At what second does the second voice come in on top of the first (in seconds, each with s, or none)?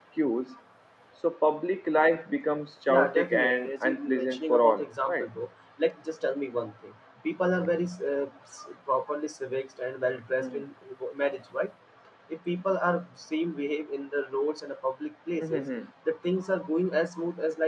2.9 s